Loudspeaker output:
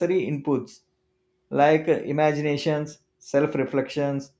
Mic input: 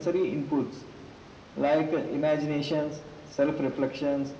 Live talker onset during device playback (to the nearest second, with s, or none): none